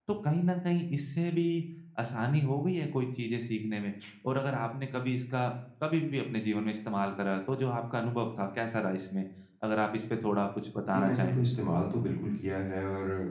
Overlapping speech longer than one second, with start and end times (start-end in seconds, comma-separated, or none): none